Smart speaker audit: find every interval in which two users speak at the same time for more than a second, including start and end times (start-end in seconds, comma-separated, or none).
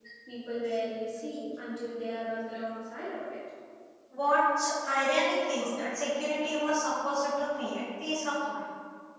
none